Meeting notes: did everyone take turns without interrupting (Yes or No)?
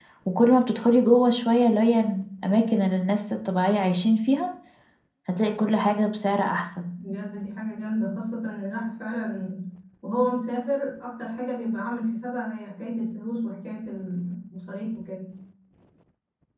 Yes